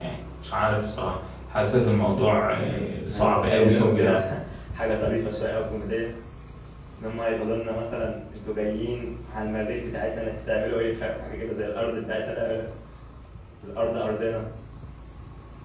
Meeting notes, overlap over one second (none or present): present